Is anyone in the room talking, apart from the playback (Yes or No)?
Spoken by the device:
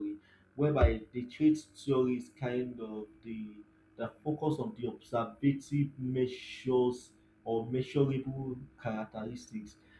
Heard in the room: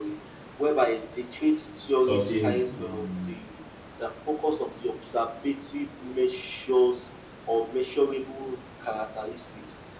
Yes